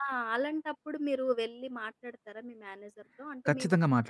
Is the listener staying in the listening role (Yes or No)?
No